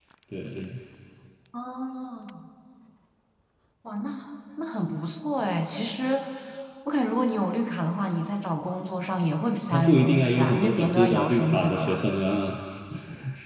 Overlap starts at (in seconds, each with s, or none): 9.7 s